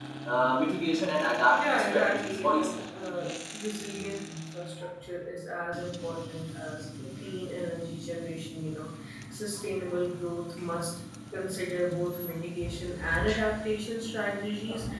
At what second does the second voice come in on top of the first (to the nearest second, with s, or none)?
2 s